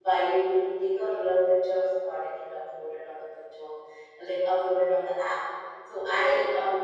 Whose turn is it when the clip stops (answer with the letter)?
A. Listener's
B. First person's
B